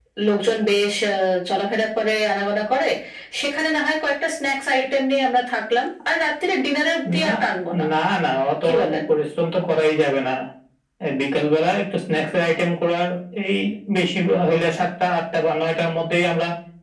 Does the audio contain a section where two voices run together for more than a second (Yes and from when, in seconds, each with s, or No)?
No